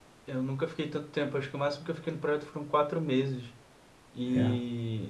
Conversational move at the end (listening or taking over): listening